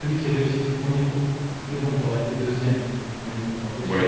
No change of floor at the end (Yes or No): Yes